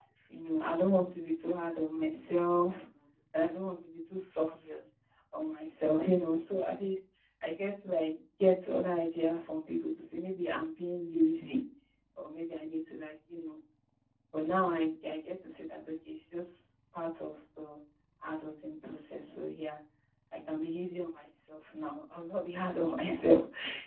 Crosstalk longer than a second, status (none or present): none